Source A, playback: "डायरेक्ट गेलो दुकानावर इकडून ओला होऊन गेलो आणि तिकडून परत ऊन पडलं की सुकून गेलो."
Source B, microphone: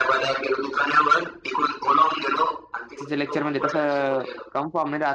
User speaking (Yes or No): Yes